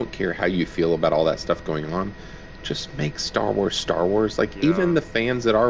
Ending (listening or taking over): listening